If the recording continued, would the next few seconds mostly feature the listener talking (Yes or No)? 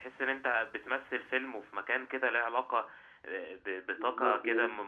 No